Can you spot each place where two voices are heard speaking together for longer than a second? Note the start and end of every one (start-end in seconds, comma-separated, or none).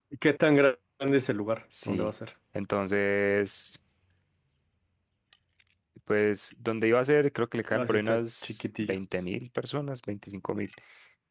7.7-9.0